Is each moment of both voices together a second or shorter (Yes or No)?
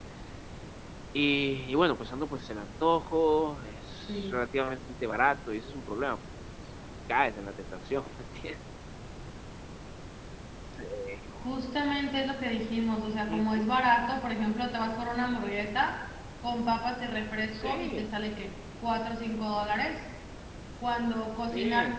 Yes